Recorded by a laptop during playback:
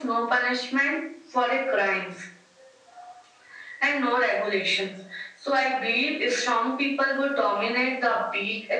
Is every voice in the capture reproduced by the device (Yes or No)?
Yes